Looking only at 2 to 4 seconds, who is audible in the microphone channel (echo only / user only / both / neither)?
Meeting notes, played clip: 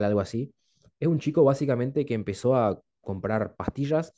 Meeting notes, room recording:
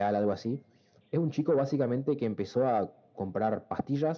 echo only